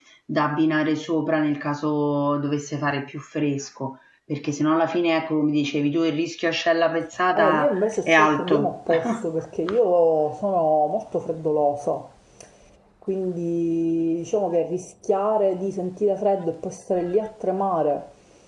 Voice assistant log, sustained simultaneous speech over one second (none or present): present